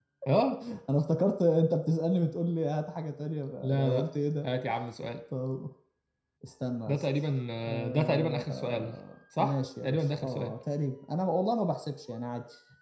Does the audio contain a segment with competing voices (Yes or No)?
Yes